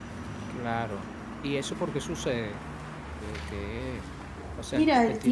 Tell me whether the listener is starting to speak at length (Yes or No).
Yes